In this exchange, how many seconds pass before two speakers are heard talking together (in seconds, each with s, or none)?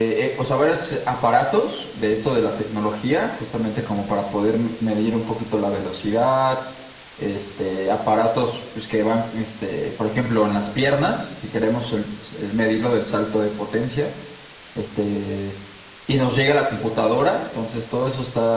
none